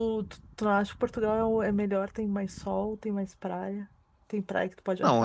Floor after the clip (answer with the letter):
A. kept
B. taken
B